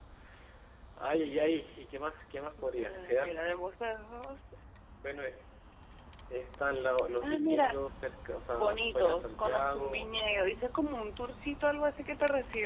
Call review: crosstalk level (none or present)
present